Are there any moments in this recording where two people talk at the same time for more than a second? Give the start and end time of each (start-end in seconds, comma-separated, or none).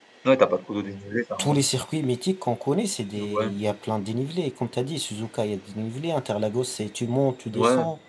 none